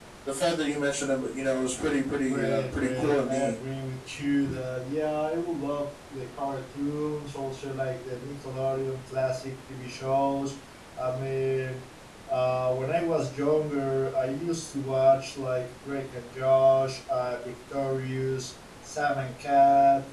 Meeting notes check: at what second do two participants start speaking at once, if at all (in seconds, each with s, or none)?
2.3 s